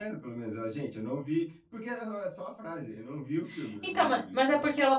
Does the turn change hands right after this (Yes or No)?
Yes